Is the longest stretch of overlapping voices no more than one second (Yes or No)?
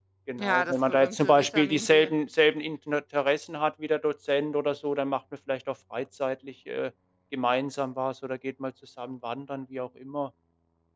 No